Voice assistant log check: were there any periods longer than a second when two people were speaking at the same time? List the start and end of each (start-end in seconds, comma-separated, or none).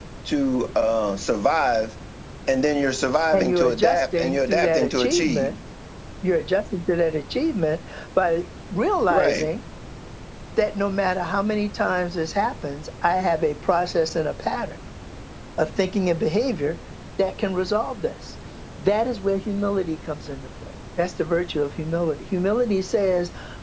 3.3-5.5